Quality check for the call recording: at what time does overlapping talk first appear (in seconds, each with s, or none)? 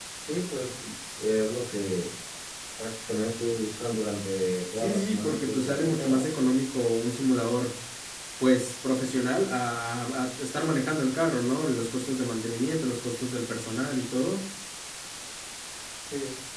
4.8 s